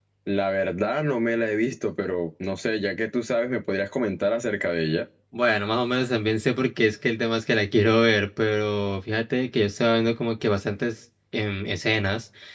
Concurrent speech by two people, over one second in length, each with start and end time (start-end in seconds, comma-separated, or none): none